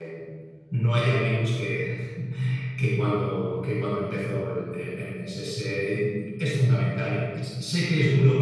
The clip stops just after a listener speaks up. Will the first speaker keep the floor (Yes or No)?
Yes